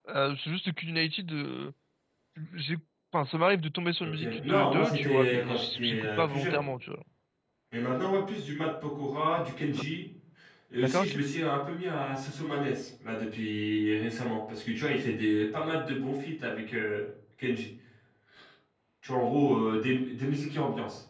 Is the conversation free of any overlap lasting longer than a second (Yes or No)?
No